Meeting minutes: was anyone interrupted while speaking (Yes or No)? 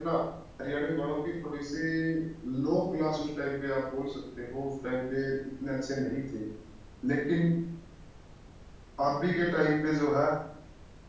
No